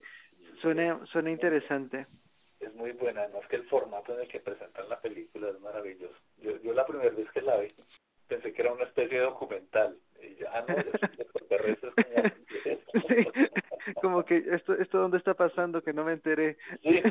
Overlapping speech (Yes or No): Yes